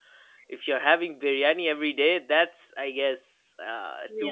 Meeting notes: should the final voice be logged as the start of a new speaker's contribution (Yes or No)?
Yes